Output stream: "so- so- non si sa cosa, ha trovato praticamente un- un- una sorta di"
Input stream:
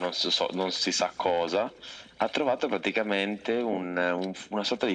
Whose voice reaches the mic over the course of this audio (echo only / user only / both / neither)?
echo only